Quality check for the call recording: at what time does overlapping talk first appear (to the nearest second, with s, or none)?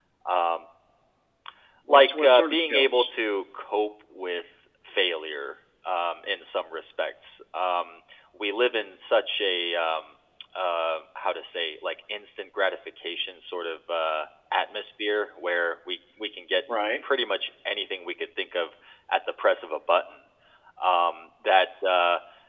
2 s